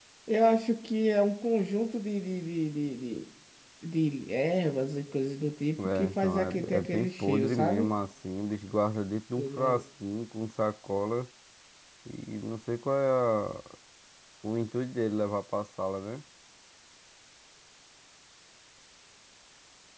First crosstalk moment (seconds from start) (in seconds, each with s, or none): 5.8 s